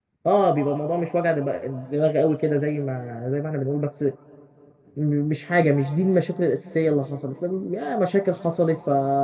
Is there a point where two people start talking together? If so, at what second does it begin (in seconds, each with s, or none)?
none